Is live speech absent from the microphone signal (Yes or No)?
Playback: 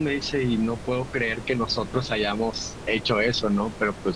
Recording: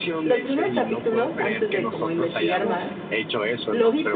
No